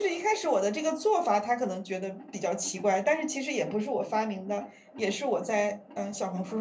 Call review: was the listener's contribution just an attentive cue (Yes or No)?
Yes